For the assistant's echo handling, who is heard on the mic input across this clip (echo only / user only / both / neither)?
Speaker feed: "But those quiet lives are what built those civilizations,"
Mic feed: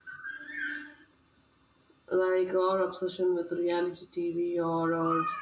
user only